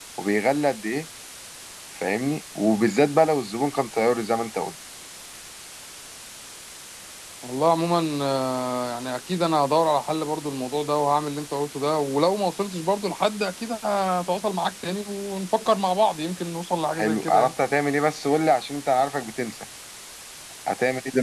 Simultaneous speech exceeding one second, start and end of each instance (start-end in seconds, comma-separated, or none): none